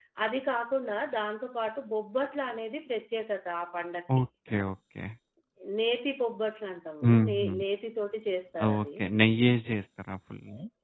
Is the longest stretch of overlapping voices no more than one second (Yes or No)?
Yes